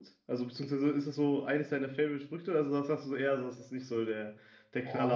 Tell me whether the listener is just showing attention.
No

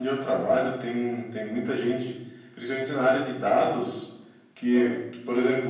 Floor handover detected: No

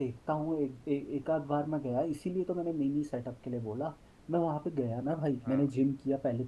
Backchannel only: Yes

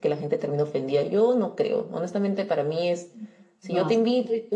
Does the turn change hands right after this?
No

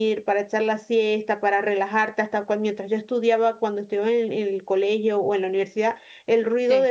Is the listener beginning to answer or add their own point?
No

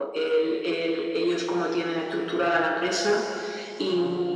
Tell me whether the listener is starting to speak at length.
No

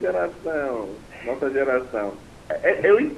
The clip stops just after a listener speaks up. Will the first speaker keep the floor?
Yes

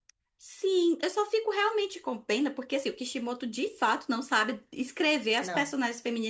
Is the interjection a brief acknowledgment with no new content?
Yes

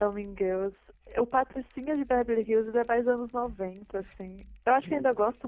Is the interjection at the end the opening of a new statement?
No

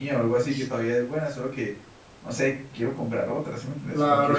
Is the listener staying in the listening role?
No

